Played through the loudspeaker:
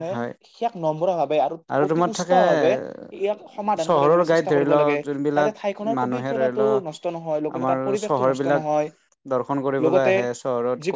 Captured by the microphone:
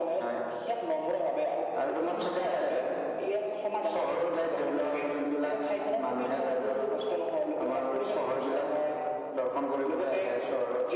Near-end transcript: none

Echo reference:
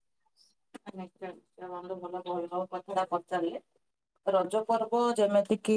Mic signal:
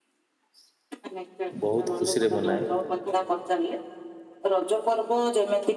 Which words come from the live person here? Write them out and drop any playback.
ବହୁତ ଖୁସିରେ ମନାଏ।

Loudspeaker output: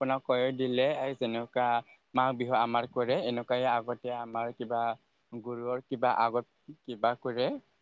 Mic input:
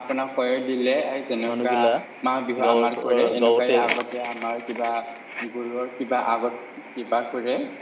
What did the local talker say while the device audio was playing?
মানুহগিলা গাঁৱৰ, পৰা গাঁৱতে

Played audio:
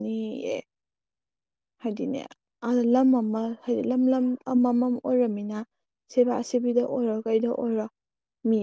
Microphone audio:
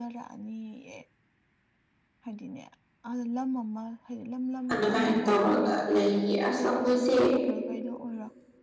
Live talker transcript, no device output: ꯑꯗꯨꯃꯥꯏꯅ ꯇꯧꯔꯒ ꯂꯩꯒ ꯑꯁ ꯑꯩꯈꯣꯏꯁꯦ

